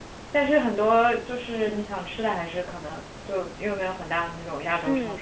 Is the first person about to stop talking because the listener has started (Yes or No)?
Yes